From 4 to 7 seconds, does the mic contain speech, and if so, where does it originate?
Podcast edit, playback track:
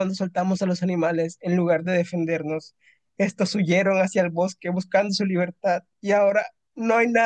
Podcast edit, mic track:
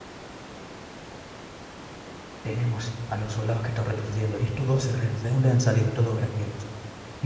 user only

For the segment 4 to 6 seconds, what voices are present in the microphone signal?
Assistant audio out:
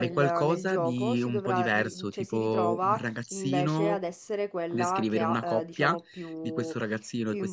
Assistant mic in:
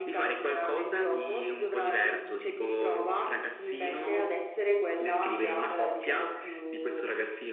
echo only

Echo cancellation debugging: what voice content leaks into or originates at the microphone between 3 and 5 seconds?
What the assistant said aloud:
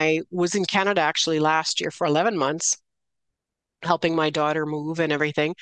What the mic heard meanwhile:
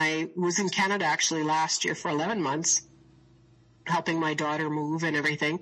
echo only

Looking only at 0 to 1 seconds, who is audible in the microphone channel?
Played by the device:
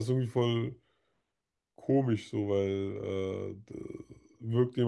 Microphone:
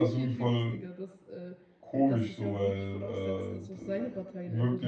both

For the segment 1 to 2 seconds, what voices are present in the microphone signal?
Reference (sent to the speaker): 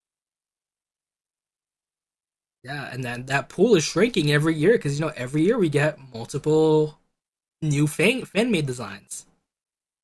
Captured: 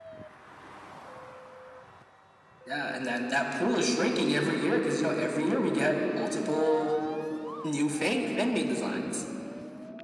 neither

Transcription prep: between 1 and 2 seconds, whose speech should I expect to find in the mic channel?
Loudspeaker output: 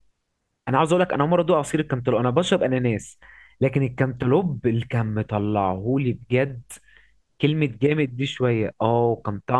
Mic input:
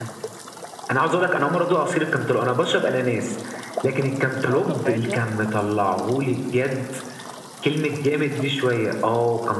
echo only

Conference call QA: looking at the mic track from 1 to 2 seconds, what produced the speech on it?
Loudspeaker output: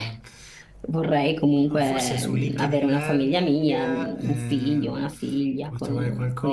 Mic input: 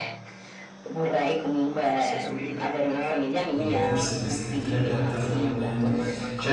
echo only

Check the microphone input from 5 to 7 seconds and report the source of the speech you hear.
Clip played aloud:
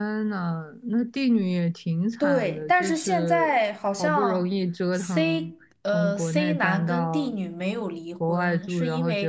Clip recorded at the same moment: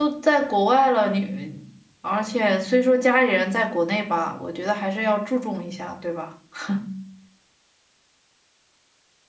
user only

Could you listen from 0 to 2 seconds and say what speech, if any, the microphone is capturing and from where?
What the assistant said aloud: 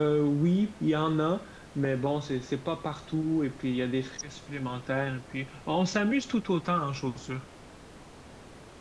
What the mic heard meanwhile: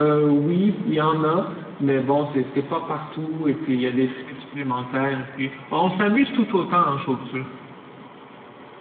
echo only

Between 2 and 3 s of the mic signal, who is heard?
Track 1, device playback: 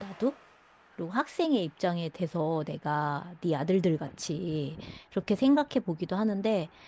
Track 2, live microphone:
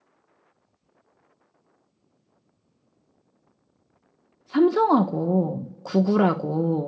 neither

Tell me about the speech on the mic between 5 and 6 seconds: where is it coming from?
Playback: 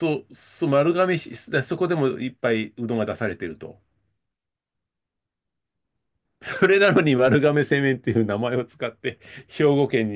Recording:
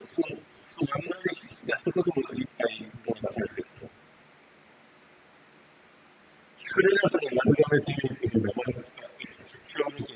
neither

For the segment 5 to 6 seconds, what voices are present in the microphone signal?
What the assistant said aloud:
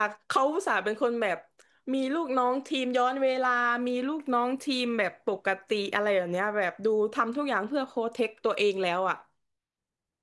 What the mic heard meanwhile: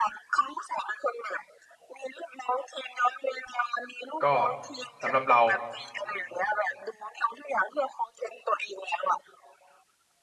both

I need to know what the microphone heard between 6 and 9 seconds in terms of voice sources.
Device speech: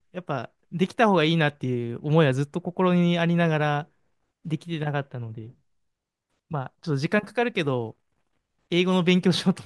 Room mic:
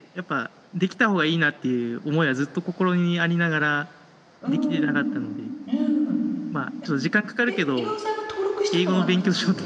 both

